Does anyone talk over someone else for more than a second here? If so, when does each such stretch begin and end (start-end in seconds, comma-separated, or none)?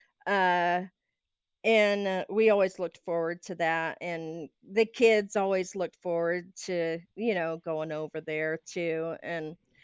none